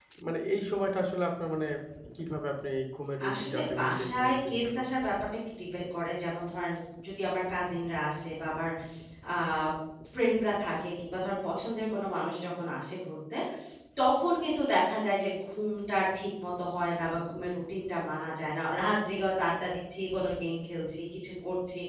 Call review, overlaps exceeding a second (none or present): present